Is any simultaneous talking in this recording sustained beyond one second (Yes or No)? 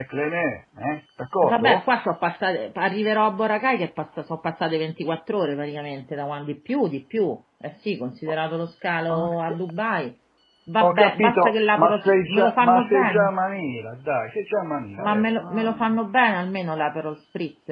Yes